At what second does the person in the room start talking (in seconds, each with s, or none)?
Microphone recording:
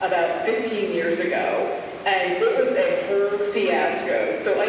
none